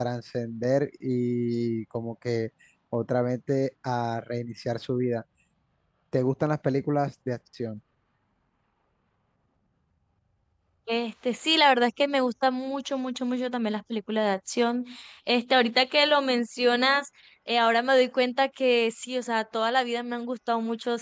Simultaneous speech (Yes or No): No